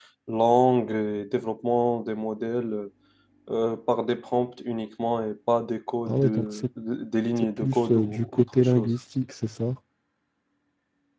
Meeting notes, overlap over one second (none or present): present